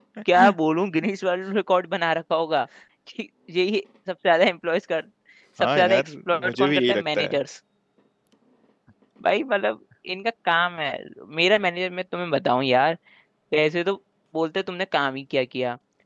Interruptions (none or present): present